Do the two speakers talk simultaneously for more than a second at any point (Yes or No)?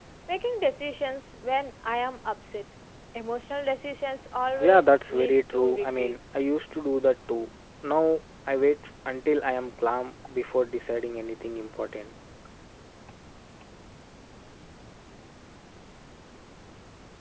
Yes